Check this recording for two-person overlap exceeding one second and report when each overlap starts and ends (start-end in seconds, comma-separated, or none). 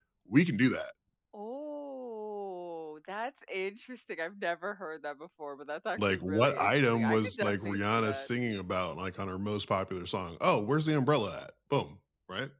6.0-8.3